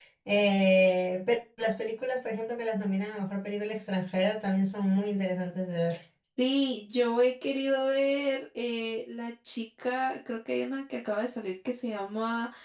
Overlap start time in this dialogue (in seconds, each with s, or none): none